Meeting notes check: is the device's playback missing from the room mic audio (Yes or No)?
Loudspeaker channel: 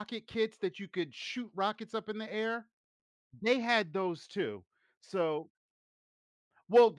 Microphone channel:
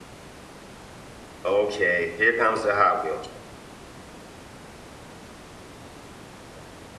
Yes